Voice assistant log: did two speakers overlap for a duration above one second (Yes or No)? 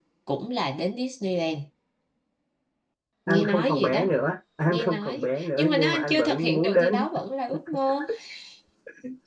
Yes